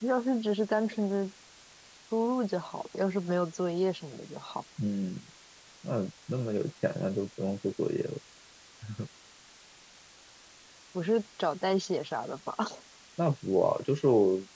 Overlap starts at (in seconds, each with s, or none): none